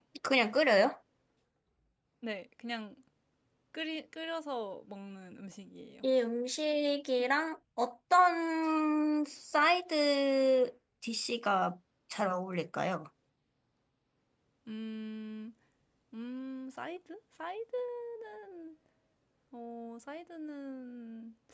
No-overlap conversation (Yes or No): Yes